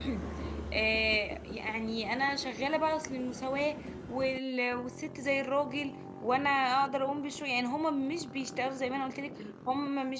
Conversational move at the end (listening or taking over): listening